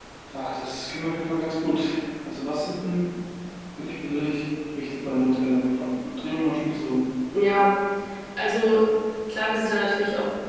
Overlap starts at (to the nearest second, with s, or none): none